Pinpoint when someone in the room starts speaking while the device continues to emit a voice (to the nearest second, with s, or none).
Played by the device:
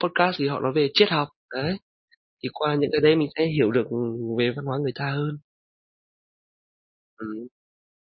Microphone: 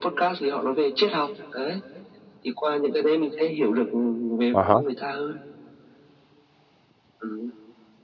5 s